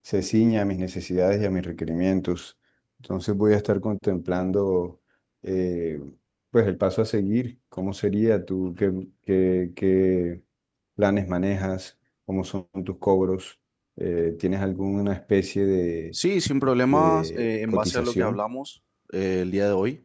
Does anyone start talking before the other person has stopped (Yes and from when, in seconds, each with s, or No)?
Yes, from 16.9 s